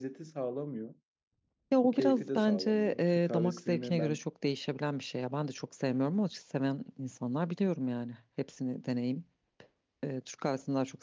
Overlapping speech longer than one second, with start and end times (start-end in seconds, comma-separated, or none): 1.9-4.2